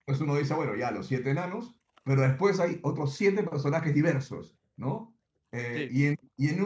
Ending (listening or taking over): listening